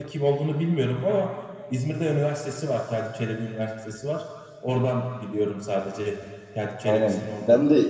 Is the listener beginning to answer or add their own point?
Yes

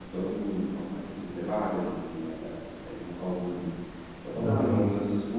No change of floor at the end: Yes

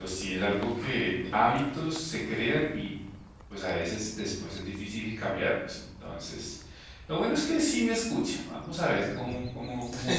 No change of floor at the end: Yes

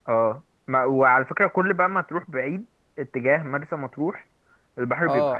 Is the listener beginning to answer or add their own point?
Yes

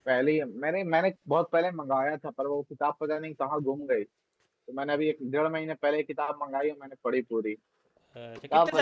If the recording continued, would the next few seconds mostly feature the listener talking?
Yes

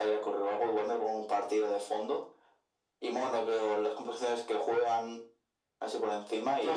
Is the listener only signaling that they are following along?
No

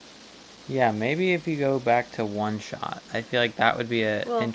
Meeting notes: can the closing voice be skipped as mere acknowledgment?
Yes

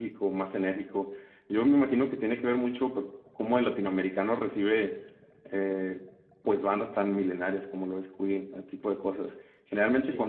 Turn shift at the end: No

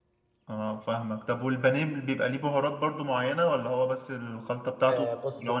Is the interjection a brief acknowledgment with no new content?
No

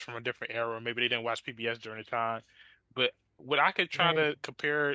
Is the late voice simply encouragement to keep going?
Yes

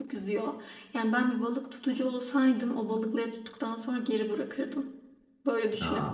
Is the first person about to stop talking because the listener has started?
Yes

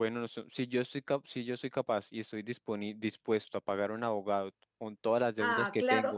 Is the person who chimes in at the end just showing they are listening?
No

